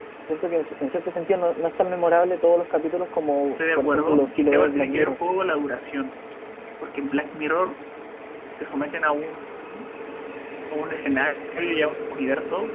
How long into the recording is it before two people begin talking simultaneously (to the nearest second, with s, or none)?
3 s